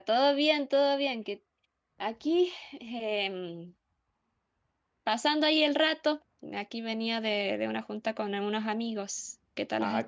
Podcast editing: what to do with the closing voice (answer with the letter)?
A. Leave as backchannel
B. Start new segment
B